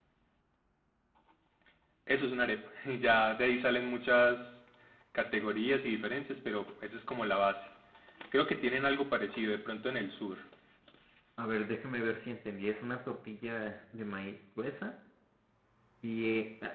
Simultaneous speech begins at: none

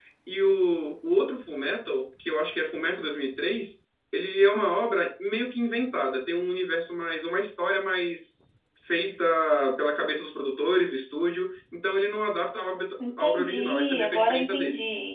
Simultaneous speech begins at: 13 s

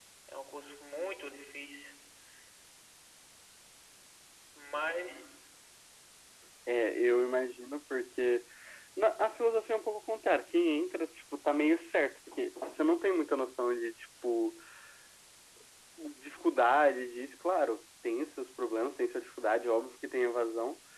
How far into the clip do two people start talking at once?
none

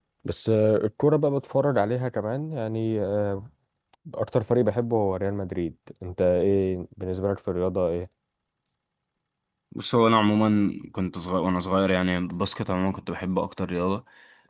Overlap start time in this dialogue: none

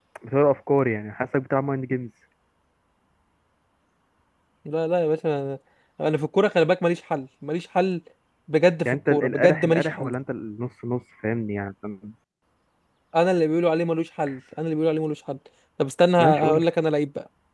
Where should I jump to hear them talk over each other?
9 s

